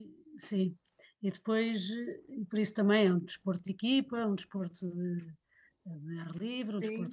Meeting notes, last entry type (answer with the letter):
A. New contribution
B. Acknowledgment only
A